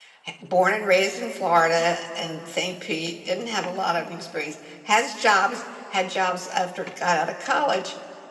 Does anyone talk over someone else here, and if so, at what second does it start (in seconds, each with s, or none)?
none